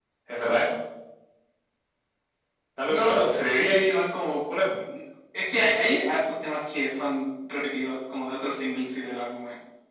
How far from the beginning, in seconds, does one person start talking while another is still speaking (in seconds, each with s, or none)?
2.9 s